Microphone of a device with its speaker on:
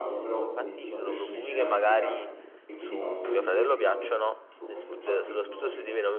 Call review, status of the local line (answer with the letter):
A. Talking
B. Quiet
A